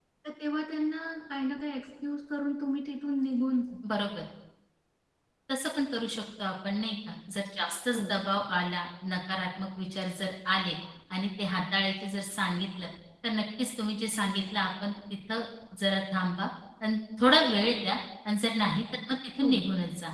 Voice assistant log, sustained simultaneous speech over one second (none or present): none